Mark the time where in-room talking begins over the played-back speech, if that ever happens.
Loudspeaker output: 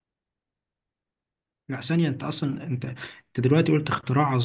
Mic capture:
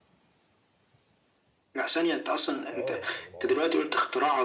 2.7 s

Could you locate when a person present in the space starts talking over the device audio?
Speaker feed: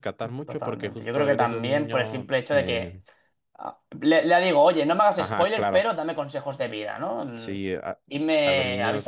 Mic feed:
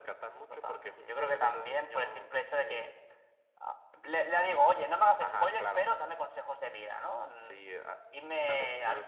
none

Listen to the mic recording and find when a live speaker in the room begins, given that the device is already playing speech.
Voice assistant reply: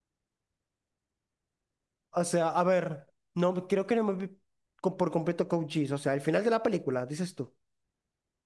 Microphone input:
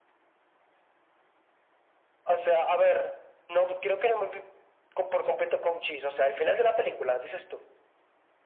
none

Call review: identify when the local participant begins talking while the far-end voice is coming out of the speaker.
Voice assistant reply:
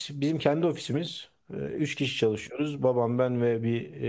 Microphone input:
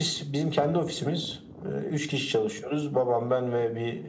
none

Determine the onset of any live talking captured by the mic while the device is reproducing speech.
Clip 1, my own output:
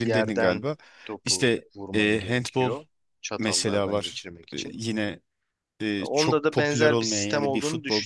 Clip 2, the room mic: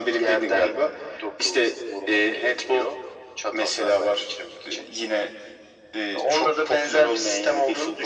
none

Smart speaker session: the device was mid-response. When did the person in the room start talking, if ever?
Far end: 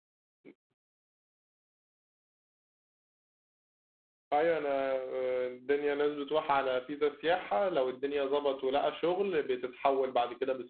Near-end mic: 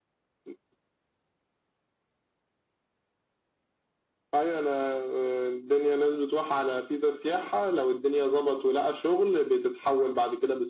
none

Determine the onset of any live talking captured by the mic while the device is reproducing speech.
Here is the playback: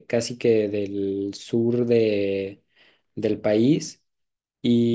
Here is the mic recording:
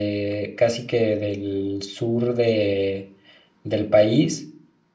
none

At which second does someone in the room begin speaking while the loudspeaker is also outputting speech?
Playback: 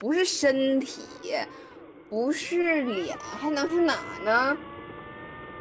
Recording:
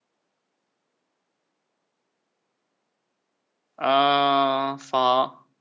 3.8 s

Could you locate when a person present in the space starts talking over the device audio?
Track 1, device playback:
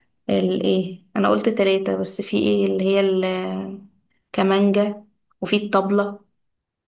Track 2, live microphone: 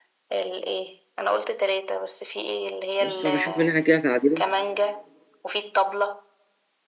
3.0 s

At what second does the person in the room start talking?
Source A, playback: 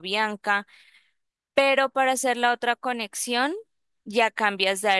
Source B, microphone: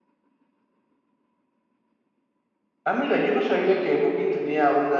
2.8 s

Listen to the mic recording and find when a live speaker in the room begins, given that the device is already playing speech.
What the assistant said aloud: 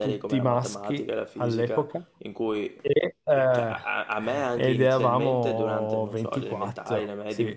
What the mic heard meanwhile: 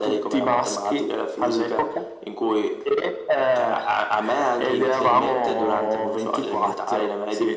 none

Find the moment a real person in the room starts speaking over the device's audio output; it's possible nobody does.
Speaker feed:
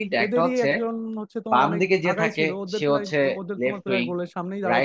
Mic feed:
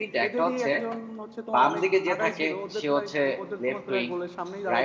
none

